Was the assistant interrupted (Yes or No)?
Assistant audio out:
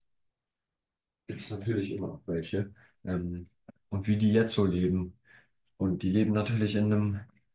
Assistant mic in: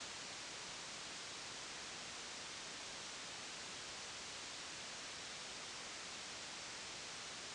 No